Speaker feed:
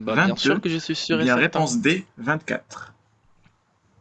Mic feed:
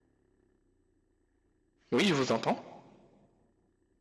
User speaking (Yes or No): Yes